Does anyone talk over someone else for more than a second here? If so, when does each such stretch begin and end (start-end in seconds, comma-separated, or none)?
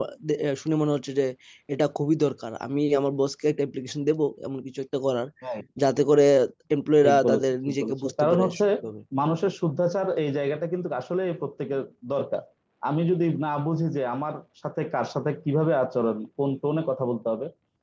7.0-8.6